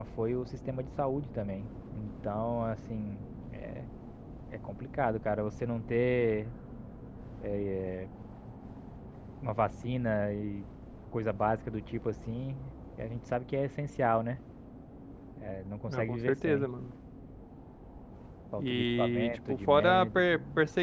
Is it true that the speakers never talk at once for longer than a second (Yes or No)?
No